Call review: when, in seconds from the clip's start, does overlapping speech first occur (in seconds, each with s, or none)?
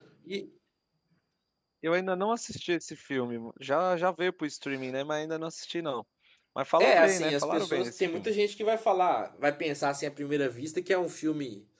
6.8 s